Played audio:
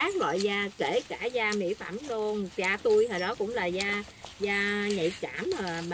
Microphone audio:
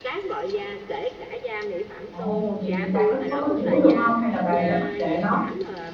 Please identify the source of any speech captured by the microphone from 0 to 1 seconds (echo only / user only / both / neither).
echo only